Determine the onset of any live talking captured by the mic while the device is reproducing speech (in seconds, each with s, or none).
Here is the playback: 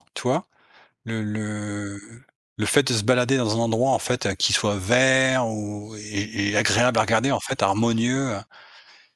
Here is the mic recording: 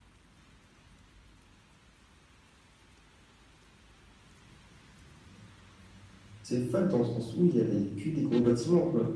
6.4 s